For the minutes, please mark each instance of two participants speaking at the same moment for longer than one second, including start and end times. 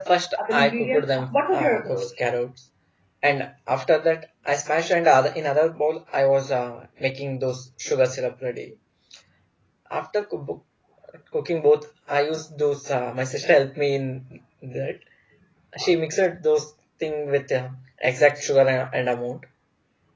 0.5-2.2

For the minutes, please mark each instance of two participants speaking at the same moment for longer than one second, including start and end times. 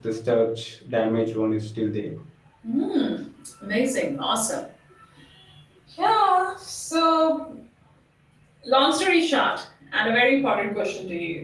none

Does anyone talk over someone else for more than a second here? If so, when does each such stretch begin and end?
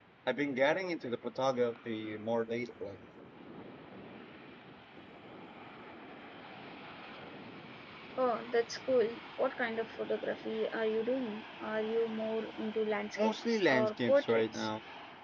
13.2-14.7

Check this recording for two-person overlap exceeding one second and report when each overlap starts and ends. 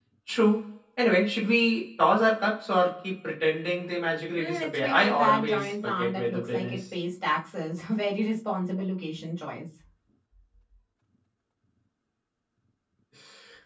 4.4-6.8

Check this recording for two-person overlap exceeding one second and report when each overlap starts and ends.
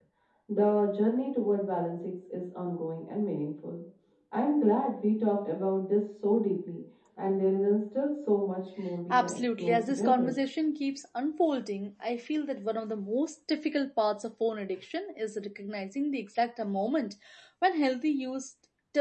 9.1-10.3

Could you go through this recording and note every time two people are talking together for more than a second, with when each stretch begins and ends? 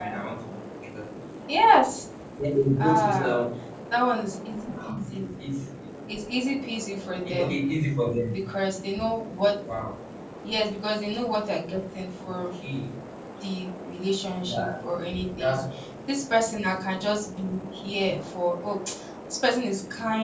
none

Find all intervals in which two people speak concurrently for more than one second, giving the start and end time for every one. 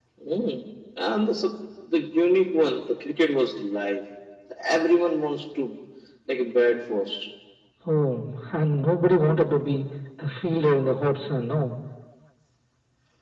none

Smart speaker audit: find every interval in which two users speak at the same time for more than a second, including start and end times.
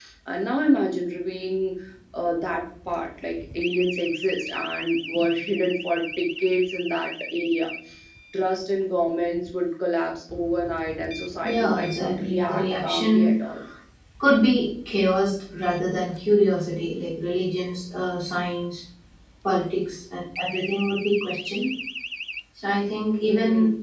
11.4-13.3

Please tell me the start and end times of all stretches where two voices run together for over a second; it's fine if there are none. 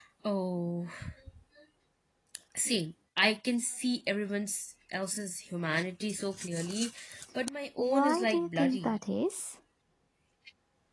7.8-9.0

